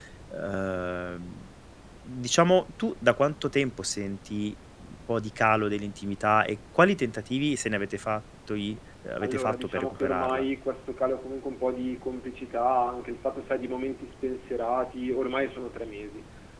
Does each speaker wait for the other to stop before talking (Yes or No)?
No